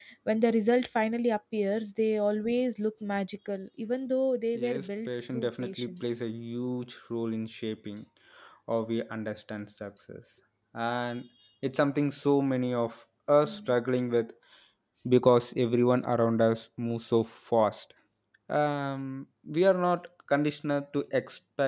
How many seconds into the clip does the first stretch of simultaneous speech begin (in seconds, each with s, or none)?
4.6 s